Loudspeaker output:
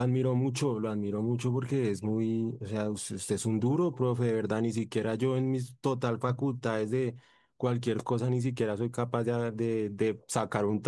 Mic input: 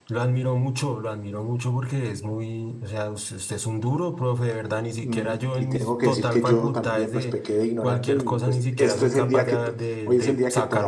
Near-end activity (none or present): present